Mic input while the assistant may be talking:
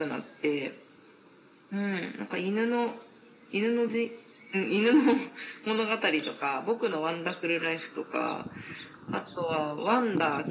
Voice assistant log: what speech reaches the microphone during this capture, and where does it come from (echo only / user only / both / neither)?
echo only